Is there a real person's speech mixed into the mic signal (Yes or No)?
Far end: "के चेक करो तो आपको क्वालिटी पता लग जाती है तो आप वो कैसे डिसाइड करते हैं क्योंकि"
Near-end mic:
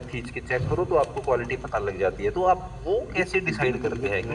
Yes